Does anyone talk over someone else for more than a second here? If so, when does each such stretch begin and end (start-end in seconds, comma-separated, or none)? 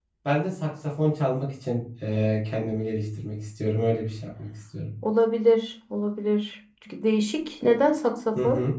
none